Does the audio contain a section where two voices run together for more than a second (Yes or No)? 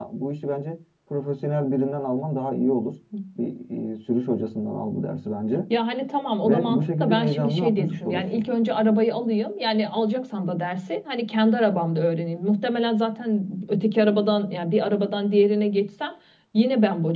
Yes